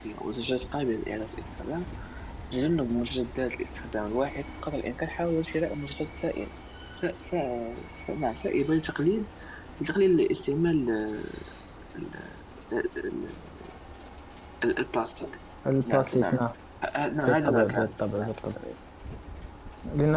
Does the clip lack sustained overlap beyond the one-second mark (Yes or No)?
No